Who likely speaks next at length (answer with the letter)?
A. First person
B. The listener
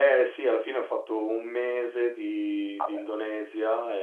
A